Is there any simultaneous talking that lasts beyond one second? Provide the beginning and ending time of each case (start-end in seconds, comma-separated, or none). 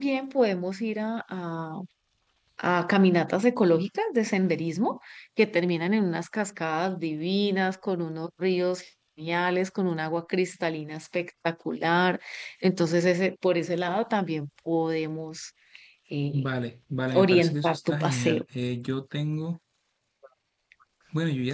17.1-18.4